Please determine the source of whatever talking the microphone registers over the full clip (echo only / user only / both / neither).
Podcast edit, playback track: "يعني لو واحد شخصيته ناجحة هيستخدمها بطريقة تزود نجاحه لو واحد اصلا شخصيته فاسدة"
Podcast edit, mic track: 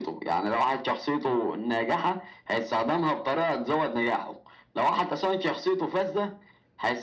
echo only